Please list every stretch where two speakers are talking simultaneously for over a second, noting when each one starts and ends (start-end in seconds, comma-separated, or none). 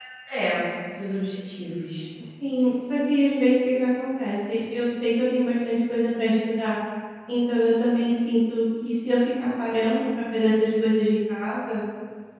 none